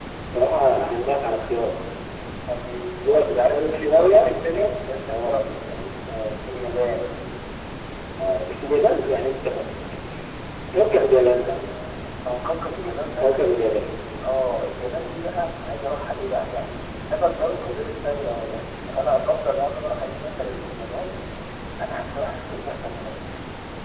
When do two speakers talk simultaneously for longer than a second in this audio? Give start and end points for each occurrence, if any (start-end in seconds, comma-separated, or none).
3.1-4.3